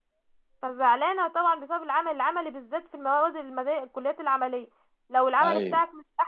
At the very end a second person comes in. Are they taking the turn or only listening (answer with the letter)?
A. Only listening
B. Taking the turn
A